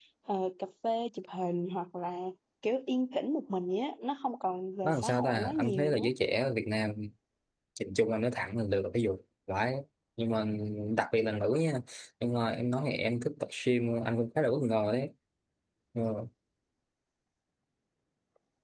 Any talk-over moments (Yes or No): Yes